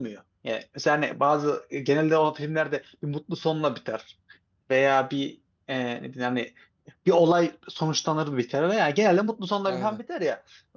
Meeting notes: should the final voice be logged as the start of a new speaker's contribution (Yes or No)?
No